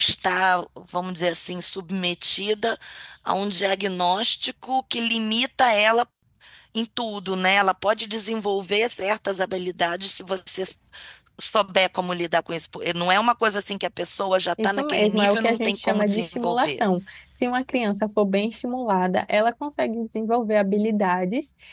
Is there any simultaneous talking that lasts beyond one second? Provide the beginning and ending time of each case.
14.6-16.7

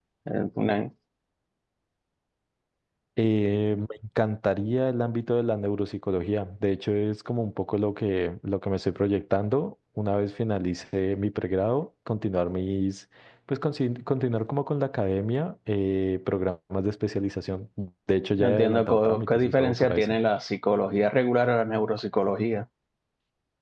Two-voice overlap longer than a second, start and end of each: 18.4-20.2

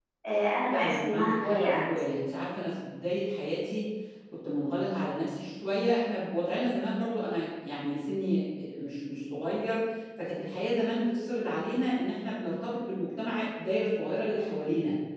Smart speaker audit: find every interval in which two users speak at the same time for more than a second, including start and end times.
0.7-2.0

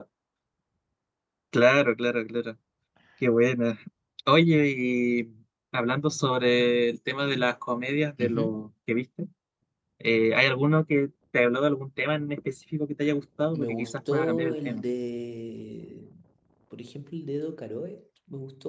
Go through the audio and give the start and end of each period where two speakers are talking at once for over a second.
13.5-14.8

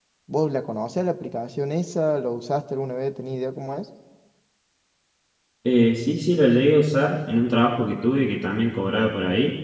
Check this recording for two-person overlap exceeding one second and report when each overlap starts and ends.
none

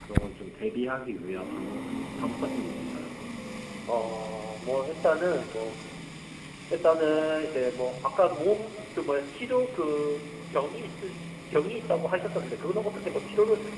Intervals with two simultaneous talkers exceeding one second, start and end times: none

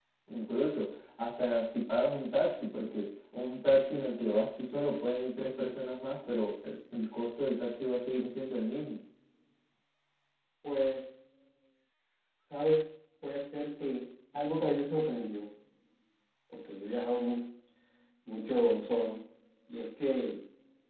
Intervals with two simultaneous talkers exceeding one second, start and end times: none

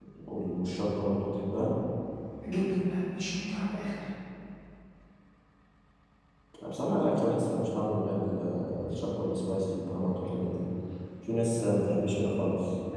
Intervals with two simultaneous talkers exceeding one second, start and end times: none

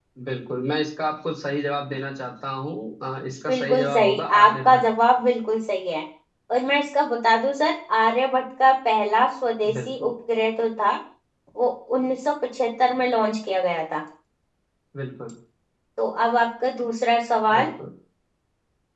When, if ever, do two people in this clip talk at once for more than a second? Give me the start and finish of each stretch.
3.5-4.8

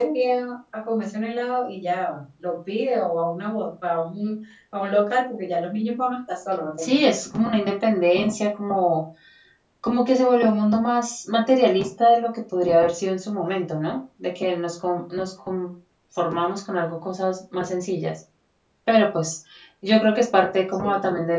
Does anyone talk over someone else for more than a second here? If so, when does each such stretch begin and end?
none

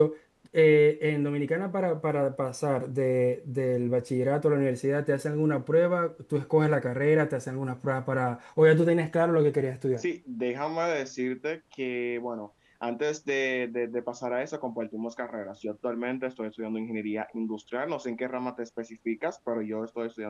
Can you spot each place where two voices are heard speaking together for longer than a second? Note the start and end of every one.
none

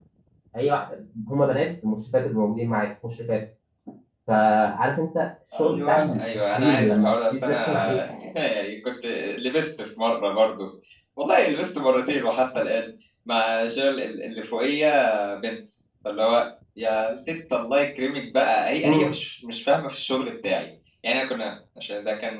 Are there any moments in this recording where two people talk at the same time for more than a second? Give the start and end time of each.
5.5-8.0

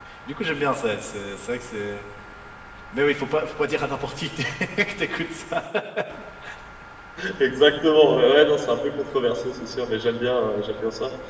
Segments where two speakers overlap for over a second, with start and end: none

